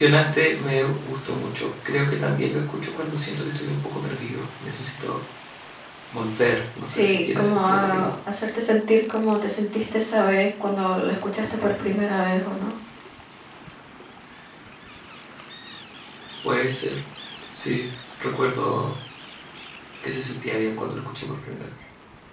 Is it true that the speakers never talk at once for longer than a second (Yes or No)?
No